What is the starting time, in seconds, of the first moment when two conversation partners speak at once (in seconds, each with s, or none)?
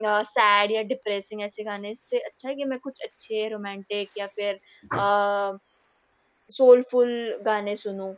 none